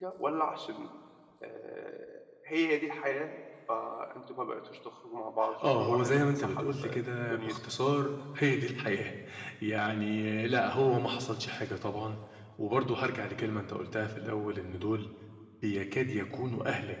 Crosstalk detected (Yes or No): Yes